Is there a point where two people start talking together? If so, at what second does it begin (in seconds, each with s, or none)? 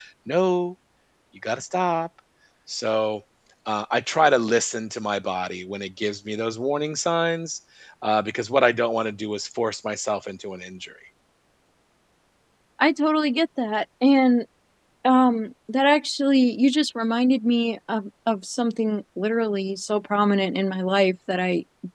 none